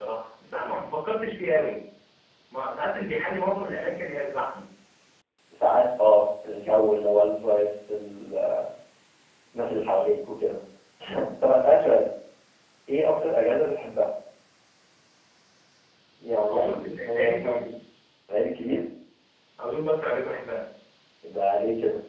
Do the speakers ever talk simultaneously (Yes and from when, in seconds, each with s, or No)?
Yes, from 16.5 s